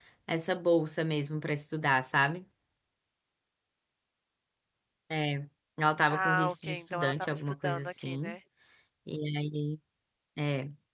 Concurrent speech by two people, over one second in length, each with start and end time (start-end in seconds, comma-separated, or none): 6.1-8.3